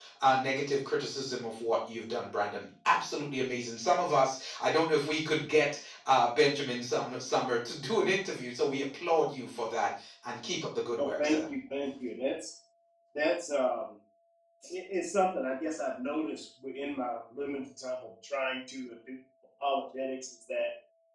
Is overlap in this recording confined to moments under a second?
Yes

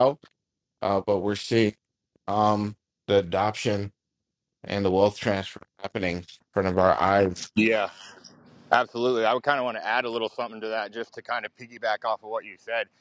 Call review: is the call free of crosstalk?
Yes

